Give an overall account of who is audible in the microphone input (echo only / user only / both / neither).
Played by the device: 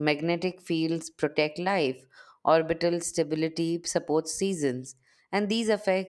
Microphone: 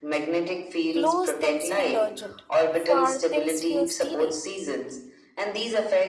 both